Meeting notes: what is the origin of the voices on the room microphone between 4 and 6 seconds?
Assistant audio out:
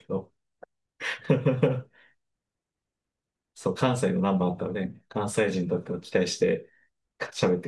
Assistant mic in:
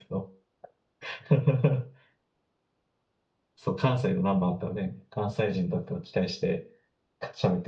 echo only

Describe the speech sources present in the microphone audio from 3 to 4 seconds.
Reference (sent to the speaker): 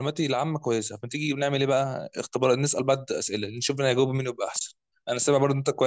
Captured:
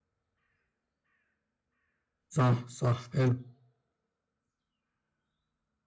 user only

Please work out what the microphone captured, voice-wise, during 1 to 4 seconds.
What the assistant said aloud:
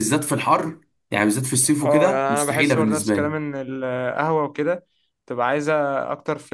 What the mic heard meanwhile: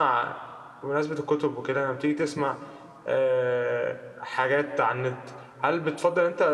user only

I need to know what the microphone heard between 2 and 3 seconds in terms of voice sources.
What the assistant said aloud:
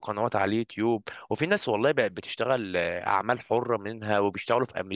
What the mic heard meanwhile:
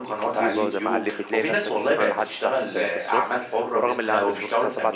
both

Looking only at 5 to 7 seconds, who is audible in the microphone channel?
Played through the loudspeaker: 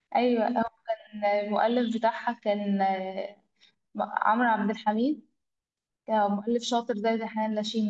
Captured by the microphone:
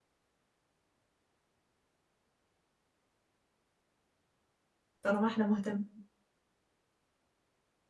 user only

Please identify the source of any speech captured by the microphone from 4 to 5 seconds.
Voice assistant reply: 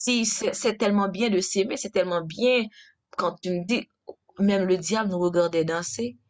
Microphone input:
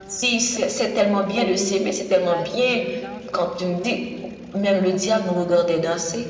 both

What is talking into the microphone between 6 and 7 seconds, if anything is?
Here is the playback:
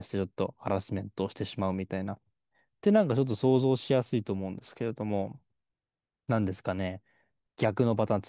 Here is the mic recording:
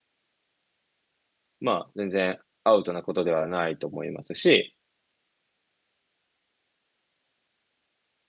neither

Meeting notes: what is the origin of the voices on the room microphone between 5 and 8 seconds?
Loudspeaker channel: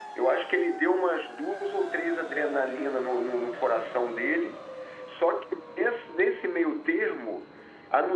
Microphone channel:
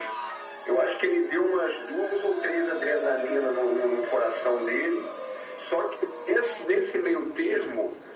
both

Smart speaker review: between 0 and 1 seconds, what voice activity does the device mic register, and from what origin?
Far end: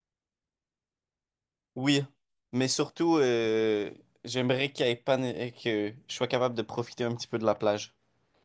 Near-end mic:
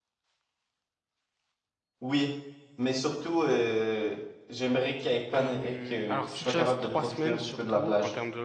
neither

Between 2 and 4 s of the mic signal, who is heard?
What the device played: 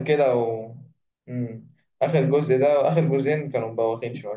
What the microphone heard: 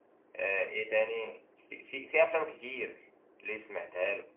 user only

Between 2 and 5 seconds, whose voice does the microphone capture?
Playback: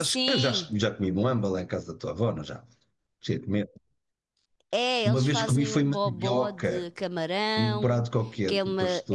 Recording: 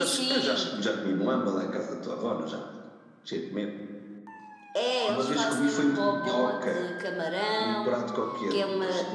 echo only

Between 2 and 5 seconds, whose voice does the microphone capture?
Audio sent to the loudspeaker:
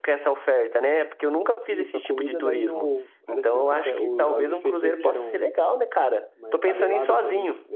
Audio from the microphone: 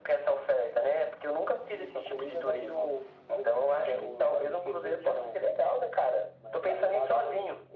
echo only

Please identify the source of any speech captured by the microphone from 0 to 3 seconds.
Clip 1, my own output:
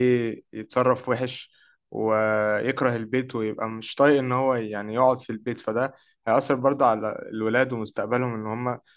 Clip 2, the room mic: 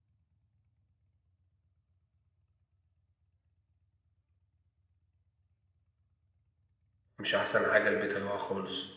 neither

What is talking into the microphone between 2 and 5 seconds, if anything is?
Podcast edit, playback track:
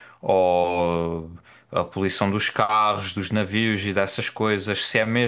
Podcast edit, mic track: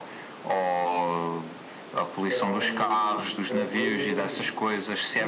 both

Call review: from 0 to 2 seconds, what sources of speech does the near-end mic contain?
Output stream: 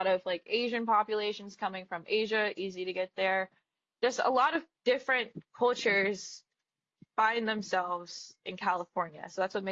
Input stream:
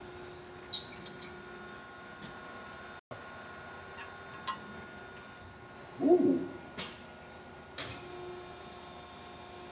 neither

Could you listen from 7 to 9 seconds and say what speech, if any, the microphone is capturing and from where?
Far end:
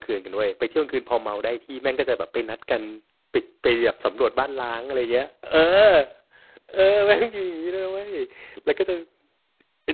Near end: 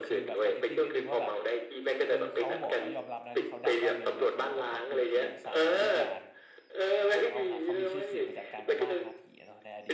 both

